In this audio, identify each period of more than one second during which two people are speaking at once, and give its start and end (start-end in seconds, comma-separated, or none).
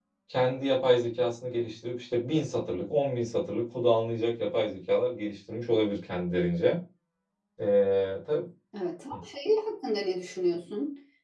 none